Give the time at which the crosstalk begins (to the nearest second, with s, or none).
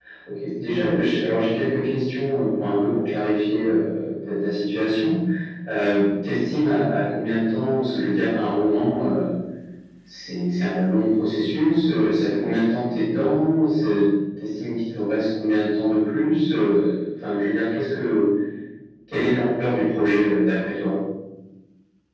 none